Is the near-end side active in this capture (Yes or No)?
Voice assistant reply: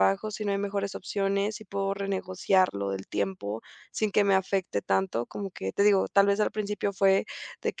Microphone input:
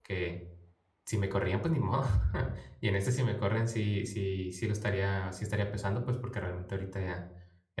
Yes